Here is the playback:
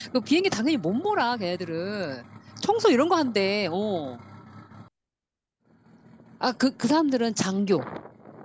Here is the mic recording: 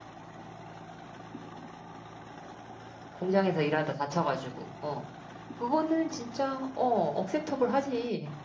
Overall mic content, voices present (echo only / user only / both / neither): user only